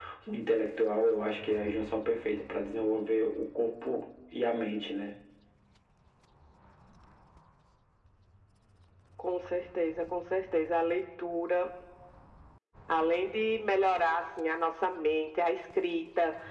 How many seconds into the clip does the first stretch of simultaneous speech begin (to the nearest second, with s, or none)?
none